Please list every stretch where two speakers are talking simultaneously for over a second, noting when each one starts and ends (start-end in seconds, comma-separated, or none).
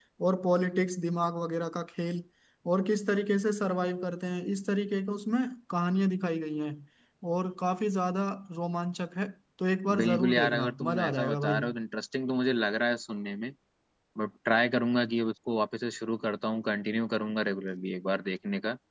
9.9-11.6